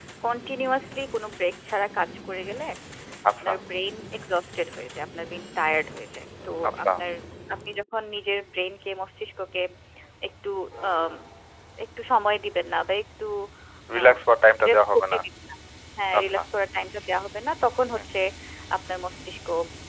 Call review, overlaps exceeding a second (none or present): none